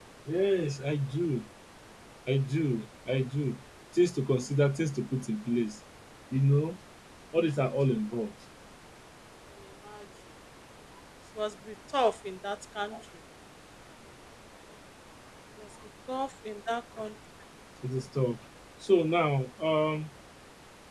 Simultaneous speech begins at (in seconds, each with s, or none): none